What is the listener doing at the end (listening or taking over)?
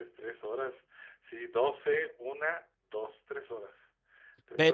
taking over